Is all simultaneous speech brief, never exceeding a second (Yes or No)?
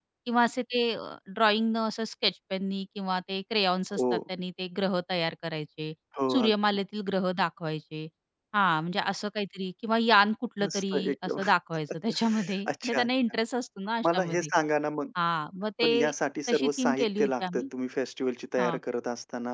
No